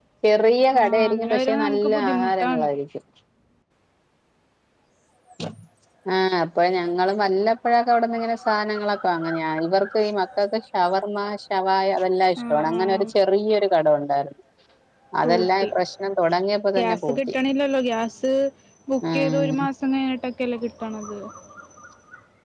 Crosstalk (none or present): present